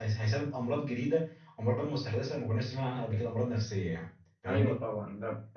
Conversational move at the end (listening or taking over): taking over